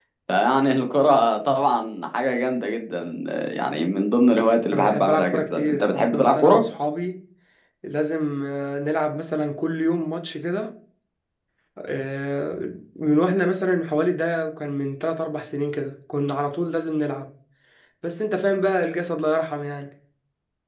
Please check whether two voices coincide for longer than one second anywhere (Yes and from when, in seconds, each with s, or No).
Yes, from 4.7 s